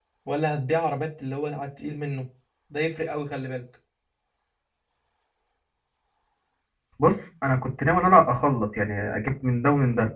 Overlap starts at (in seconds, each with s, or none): none